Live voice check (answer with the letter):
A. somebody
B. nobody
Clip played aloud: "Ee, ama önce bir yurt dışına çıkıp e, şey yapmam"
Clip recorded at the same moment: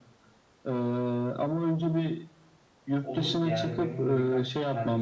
A